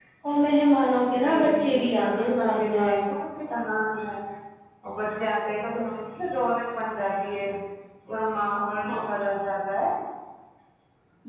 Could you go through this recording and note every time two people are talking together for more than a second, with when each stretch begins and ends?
1.2-2.9

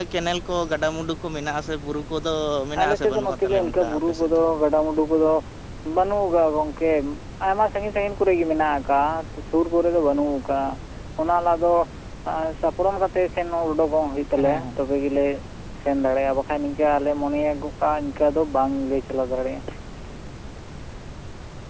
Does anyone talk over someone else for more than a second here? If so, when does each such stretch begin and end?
2.8-4.4

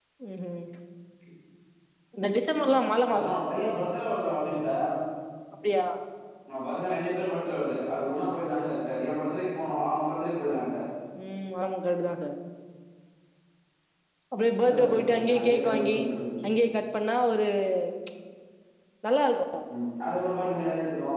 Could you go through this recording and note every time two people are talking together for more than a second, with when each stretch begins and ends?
14.6-16.0

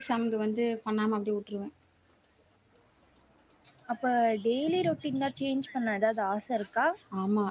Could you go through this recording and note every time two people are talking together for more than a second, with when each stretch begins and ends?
none

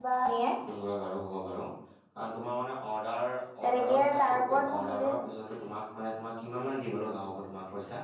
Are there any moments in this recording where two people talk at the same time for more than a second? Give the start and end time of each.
3.7-5.3

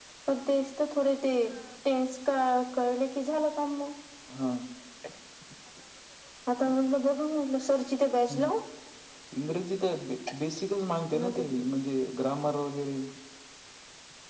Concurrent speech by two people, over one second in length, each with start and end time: none

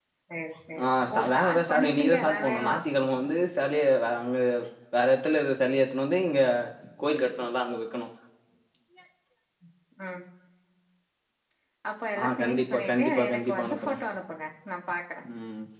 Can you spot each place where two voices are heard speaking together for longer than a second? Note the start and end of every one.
0.8-2.8, 12.2-13.9

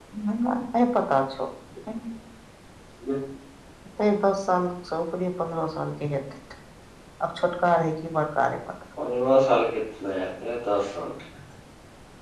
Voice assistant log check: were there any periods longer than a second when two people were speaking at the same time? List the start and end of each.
none

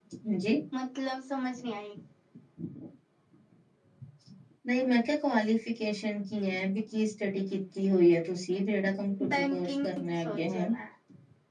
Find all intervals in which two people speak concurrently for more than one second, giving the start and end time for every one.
9.3-10.7

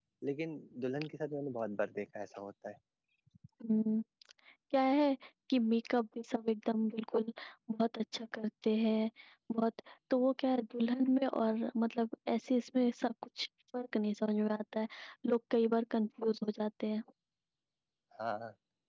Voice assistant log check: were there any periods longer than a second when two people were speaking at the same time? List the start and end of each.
none

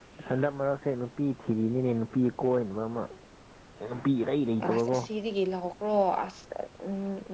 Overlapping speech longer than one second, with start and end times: none

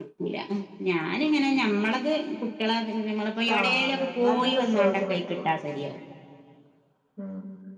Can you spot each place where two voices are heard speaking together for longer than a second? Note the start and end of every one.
3.6-5.5

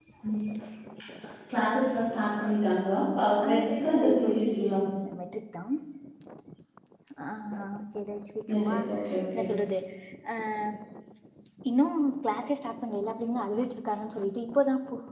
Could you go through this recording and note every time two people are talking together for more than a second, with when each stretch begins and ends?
3.5-4.8

